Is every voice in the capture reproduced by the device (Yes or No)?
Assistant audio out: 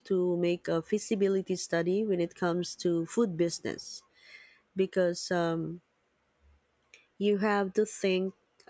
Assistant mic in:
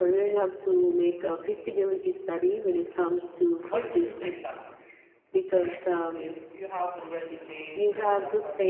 No